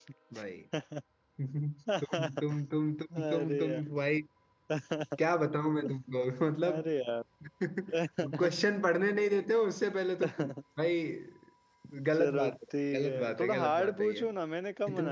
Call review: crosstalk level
present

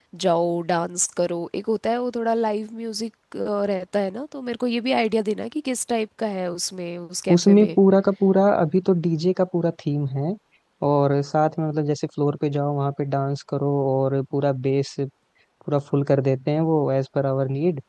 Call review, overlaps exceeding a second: none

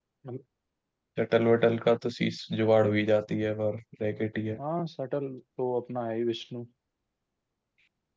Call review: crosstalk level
none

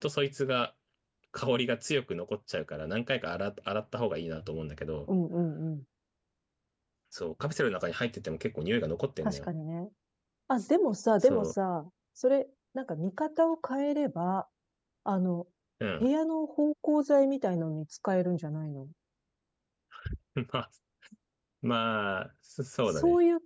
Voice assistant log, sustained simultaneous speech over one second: none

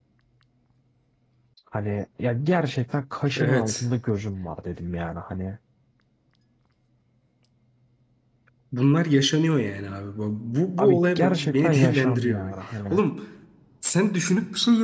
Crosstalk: present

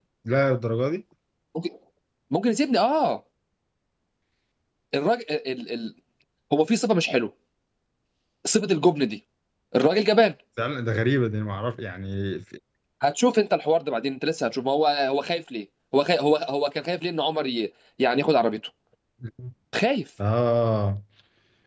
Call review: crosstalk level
none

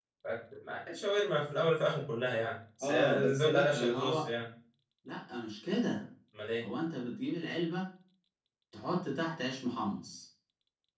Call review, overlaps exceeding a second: present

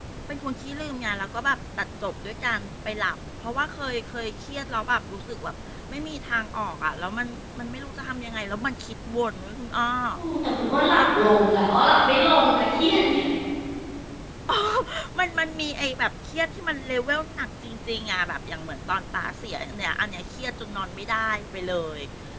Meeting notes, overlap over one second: none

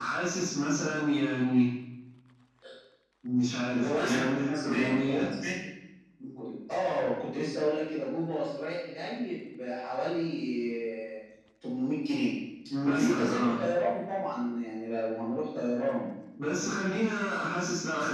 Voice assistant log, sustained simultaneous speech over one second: present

